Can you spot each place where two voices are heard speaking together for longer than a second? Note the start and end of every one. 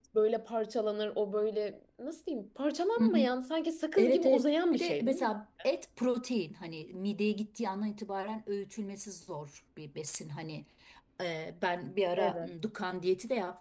4.0-5.3

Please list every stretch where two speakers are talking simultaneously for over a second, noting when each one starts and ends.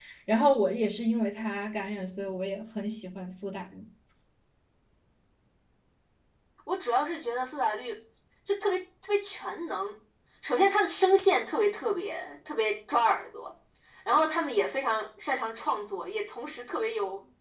none

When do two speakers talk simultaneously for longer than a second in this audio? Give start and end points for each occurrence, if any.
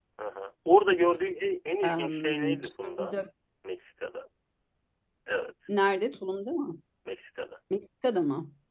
1.9-3.1

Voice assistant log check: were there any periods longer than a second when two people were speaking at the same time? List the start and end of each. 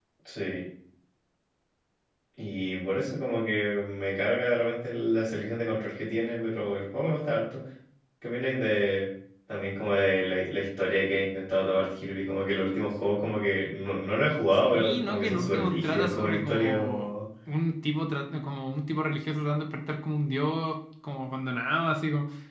14.6-17.1

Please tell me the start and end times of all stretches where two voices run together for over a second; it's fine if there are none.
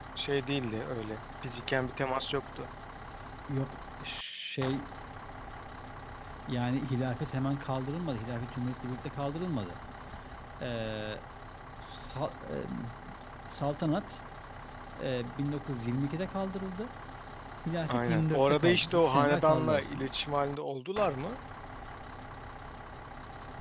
17.9-20.1

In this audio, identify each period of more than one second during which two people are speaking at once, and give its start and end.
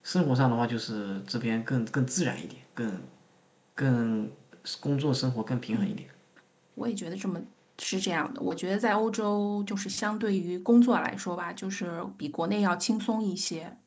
none

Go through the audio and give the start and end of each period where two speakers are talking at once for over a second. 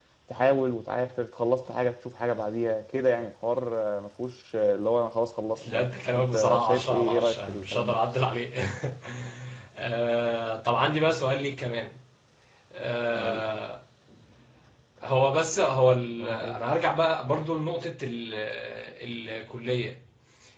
5.7-8.0

